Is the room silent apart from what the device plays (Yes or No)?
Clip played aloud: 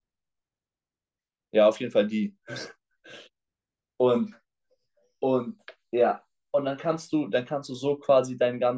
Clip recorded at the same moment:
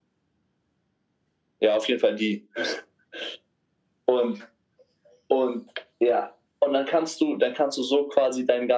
Yes